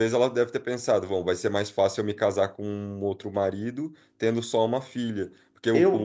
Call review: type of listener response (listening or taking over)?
taking over